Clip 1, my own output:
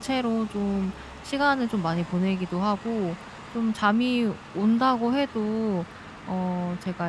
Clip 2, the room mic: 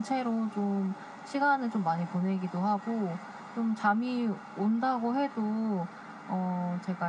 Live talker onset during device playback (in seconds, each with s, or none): none